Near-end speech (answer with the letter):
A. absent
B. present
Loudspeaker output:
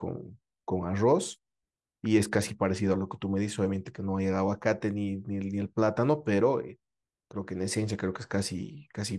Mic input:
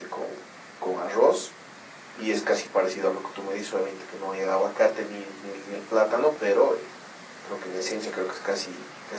A